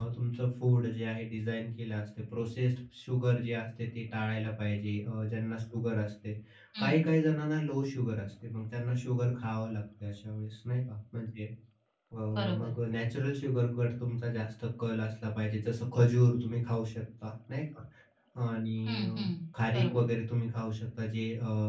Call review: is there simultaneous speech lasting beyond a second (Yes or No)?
No